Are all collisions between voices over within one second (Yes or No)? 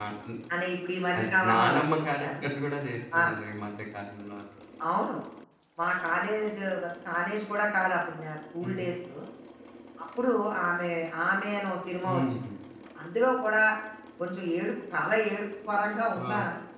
No